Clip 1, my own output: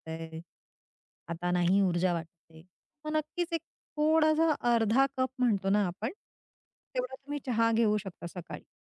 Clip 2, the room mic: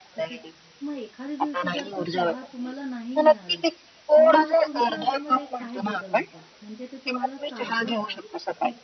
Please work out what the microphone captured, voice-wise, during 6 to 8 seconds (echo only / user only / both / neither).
both